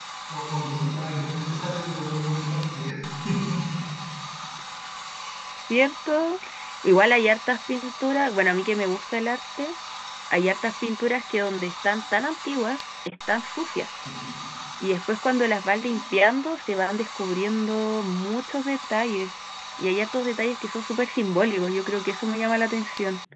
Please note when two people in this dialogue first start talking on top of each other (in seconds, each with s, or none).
none